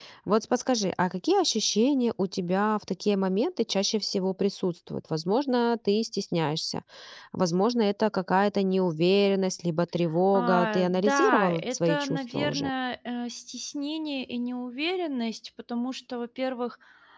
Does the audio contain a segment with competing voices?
Yes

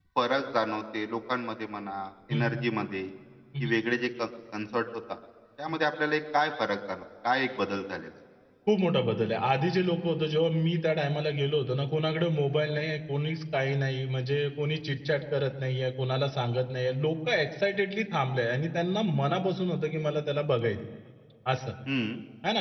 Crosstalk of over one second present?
No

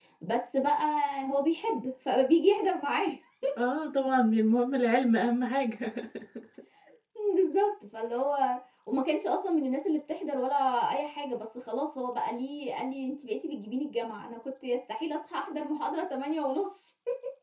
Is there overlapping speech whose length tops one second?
No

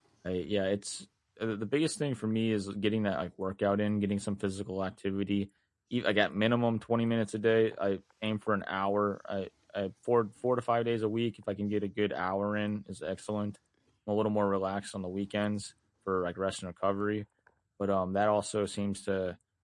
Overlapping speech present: No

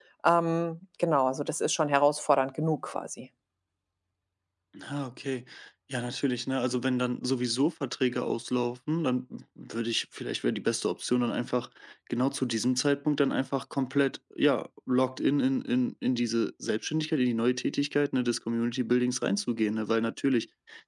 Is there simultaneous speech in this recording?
No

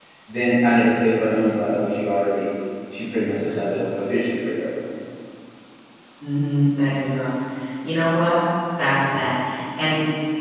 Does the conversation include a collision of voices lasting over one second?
No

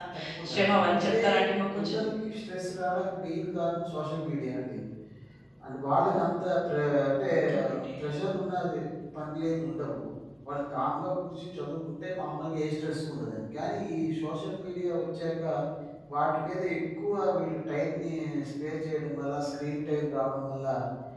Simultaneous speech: Yes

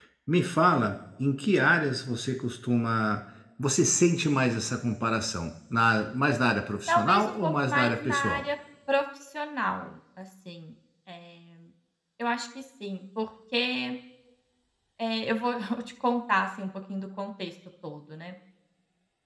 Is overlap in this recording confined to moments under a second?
No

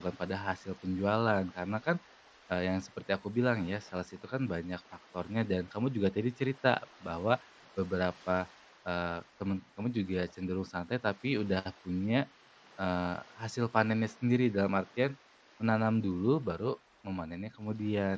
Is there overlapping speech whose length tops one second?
No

